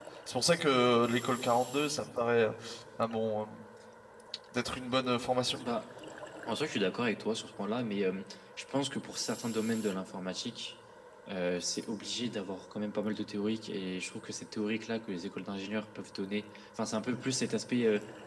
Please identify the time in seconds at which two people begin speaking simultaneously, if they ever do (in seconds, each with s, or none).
none